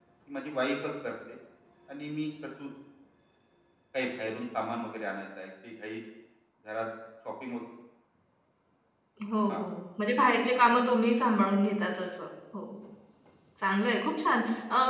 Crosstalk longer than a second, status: none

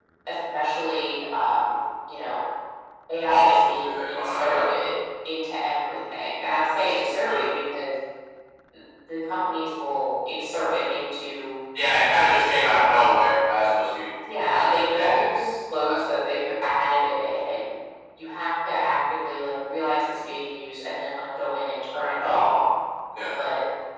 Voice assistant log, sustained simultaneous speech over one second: present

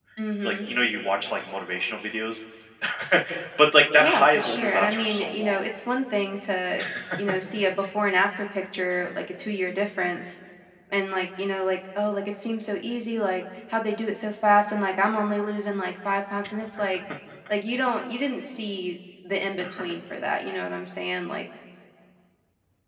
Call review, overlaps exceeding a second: present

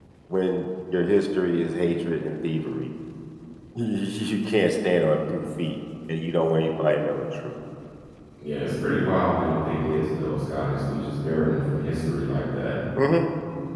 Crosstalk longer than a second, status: none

